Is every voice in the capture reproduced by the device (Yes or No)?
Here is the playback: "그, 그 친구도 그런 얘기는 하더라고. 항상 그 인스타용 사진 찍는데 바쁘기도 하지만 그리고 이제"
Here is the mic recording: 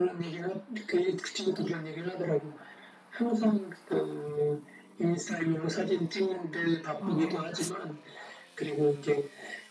No